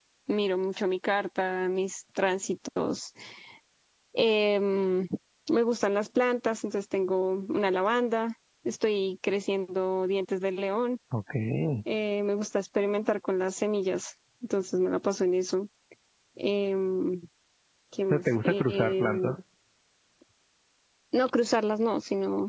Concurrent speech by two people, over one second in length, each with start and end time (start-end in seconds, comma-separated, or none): 18.1-19.3